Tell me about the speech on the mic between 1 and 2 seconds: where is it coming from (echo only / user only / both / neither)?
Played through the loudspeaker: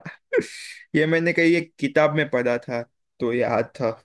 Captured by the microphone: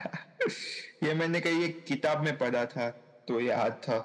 echo only